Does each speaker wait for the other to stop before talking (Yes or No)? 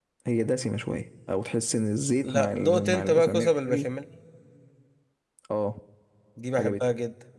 No